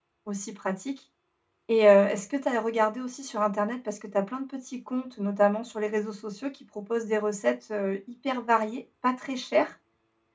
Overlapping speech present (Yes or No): No